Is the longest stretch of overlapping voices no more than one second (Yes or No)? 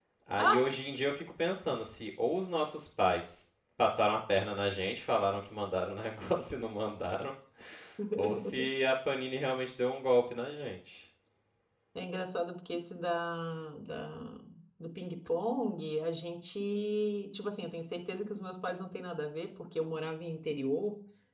Yes